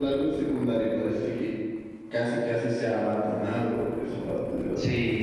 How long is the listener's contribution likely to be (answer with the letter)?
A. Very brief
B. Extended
B